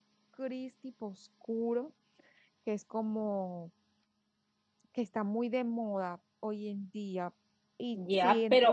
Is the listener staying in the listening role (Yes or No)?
No